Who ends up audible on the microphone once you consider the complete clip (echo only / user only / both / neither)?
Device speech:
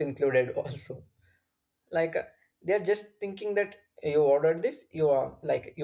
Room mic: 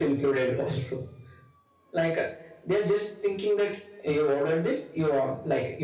echo only